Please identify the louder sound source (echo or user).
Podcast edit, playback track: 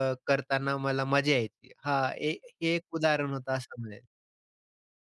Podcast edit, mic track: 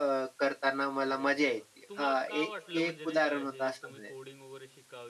echo